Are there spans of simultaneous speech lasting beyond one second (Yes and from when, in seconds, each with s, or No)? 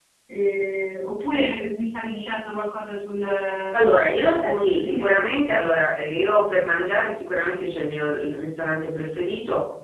Yes, from 3.7 s